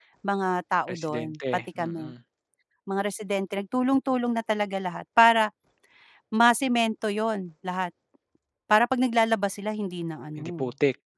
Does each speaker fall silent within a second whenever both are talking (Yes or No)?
No